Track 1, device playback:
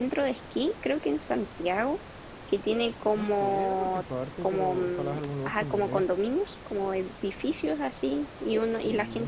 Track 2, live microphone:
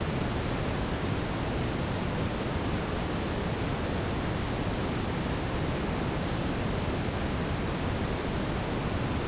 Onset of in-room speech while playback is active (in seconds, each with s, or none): none